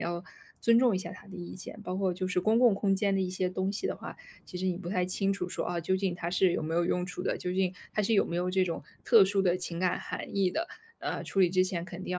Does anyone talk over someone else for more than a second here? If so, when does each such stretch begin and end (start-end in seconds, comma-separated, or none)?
none